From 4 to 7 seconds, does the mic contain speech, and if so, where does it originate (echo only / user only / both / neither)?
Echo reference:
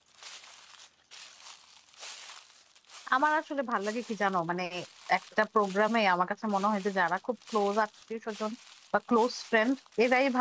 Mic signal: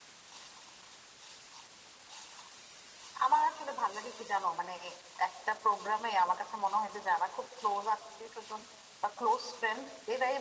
echo only